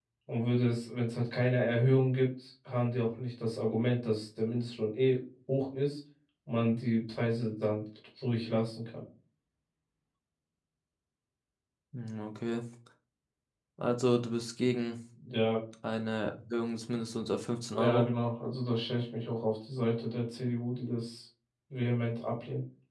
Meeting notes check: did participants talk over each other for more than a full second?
No

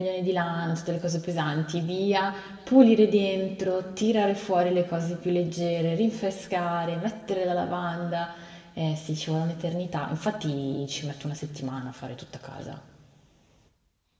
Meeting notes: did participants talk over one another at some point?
No

